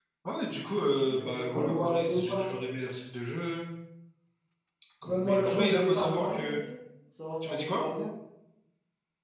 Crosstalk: present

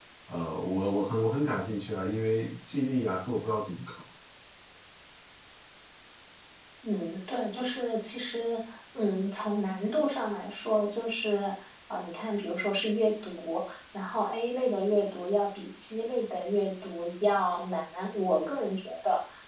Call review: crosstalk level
none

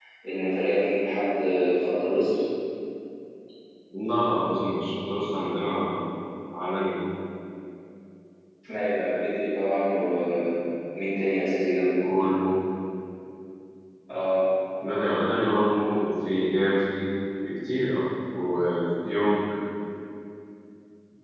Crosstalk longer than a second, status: none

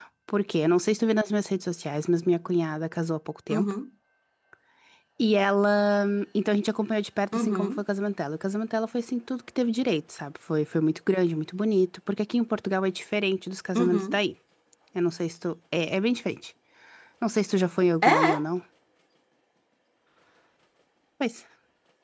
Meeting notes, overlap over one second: none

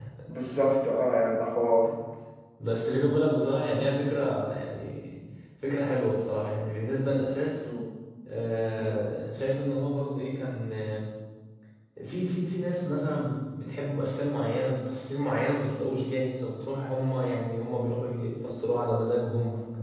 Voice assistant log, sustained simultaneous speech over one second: none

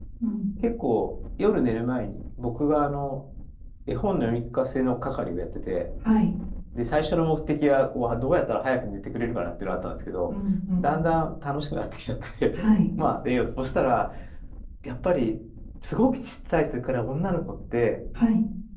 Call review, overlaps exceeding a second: none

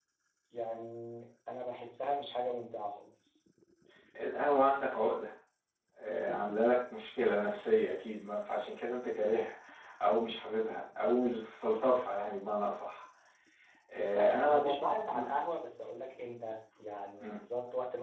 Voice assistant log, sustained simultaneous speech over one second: present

